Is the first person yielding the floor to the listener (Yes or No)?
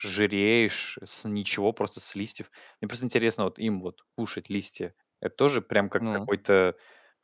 No